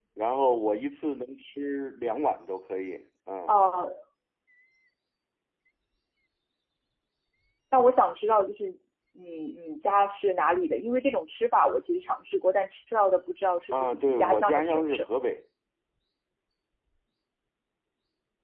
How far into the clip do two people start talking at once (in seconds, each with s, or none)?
13.7 s